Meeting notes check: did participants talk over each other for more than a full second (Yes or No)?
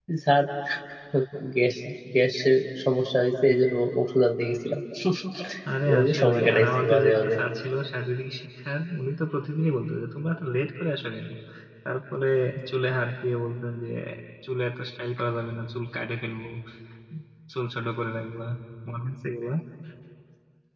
Yes